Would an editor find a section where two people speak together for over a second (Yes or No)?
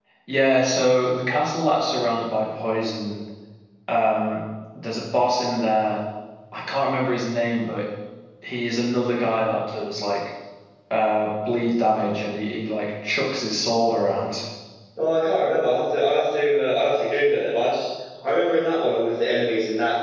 No